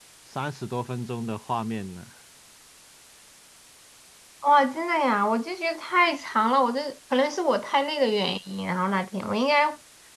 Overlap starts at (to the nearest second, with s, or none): none